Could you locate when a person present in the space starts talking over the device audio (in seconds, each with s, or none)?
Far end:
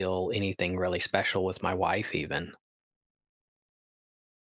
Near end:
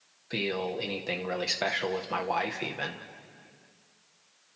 none